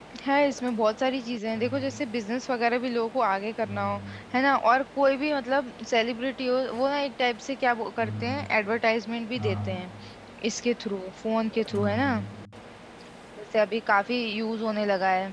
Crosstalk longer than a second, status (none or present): none